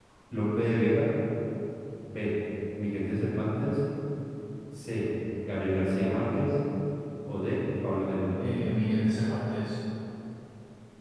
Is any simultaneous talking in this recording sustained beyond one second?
No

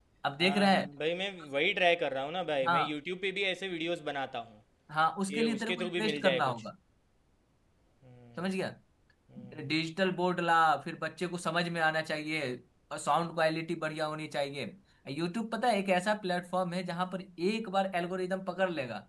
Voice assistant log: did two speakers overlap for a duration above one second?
Yes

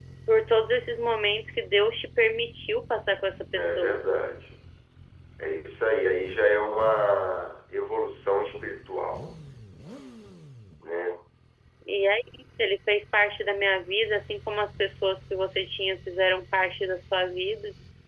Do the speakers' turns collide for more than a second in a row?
No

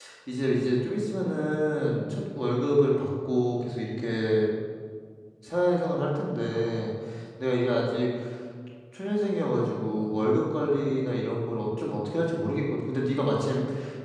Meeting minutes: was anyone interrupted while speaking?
No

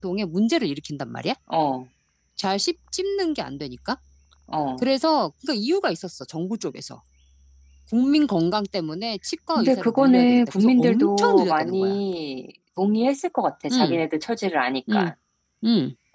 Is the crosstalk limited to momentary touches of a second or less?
No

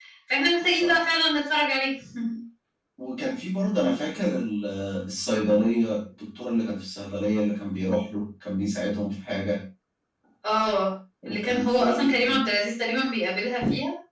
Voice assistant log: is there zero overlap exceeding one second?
No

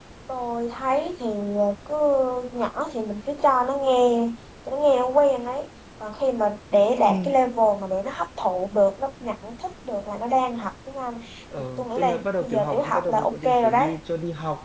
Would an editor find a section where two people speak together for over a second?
Yes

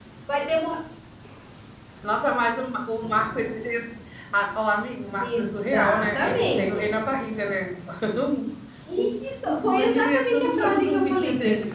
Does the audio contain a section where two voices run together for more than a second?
Yes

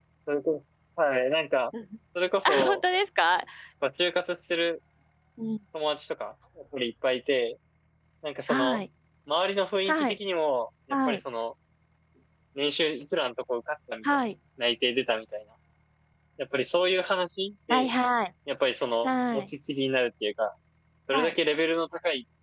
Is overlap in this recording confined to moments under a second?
Yes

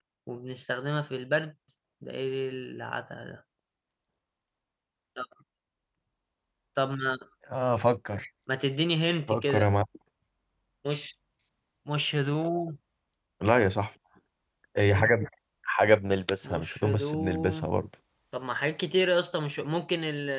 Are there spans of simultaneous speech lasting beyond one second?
Yes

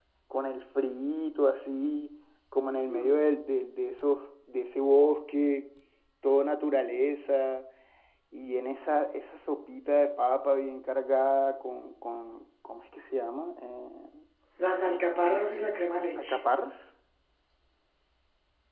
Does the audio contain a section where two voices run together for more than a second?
No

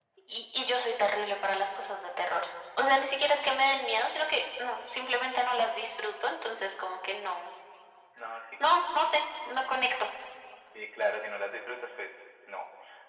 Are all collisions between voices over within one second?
Yes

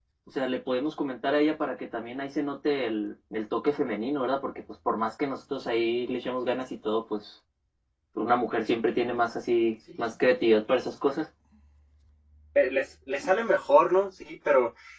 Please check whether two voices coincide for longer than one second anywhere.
No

